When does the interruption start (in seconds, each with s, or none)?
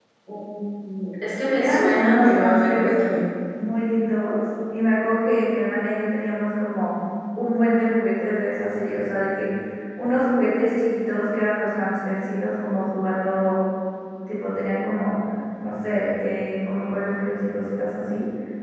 1.6 s